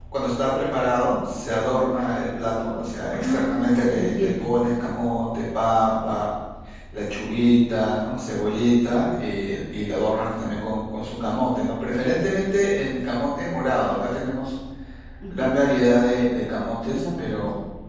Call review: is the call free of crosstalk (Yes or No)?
No